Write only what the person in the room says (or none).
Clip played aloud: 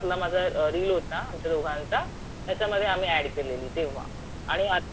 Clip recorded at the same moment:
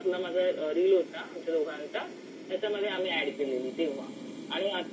none